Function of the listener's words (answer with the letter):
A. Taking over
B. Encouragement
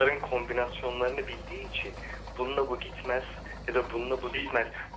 B